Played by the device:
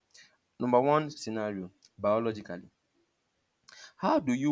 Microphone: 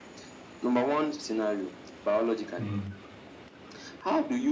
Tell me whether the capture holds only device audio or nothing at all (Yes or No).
No